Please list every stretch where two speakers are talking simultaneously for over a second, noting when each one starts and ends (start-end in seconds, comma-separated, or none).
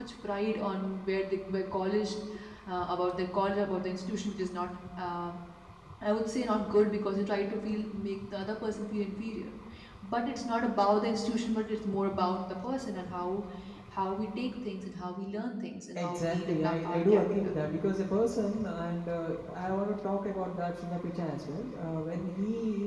15.9-17.3